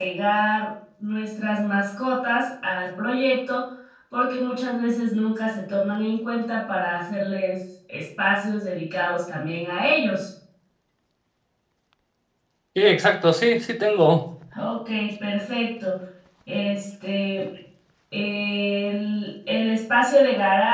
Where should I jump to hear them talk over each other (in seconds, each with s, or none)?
none